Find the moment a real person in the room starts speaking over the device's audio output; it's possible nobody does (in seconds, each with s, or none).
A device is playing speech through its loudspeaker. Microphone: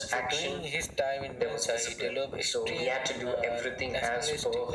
none